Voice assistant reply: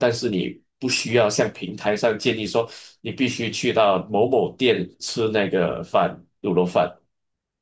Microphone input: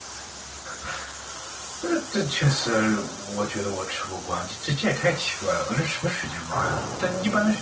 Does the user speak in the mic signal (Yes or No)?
Yes